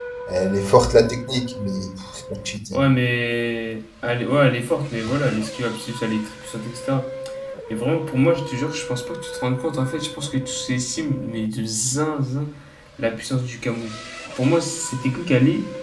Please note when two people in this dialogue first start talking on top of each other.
none

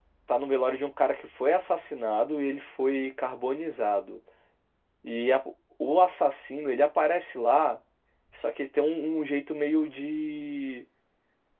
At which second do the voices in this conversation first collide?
none

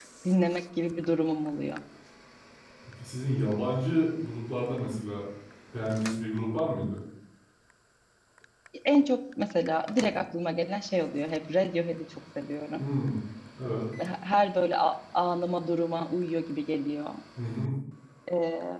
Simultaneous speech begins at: none

